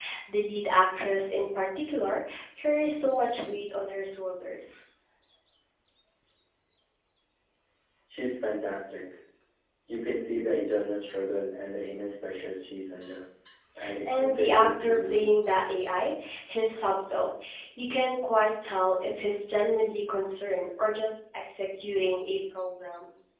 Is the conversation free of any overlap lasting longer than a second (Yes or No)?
No